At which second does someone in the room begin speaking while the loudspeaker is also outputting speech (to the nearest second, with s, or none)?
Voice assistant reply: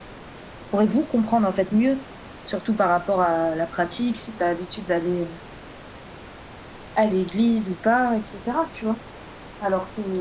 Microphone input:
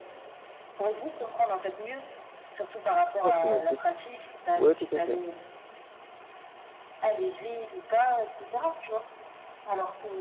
3 s